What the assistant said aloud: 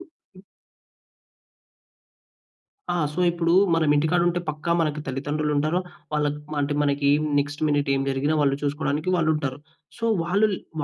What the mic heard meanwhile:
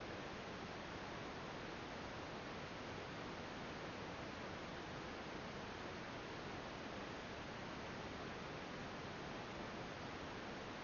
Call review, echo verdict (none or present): none